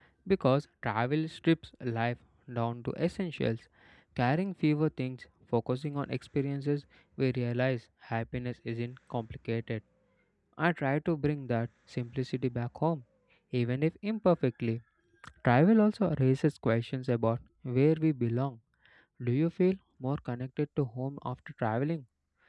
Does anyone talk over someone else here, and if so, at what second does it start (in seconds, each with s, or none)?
none